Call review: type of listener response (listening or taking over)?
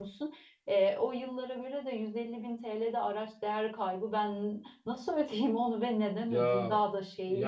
taking over